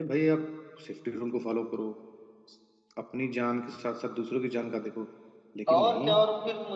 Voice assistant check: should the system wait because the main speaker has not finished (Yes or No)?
No